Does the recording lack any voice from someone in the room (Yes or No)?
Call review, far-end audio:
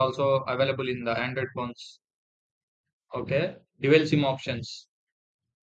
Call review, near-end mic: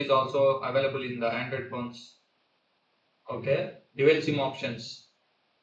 Yes